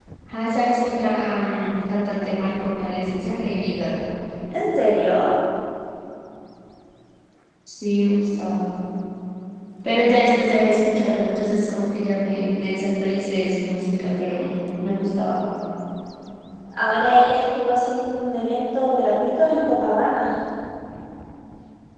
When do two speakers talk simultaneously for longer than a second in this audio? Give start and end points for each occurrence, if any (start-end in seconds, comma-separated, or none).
none